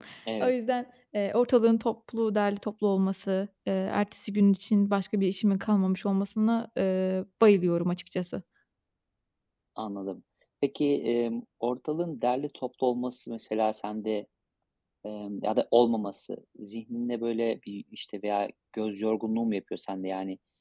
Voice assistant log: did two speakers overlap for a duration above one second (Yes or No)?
No